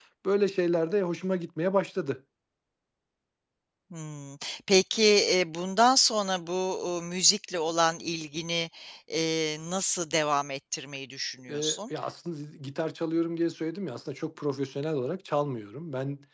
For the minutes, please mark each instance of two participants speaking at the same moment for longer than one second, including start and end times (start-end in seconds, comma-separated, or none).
none